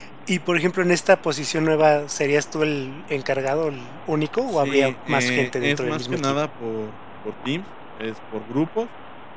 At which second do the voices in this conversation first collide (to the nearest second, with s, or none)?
4 s